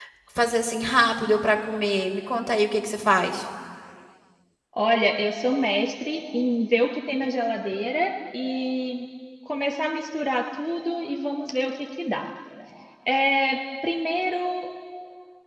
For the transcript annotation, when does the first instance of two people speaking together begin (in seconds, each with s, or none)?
none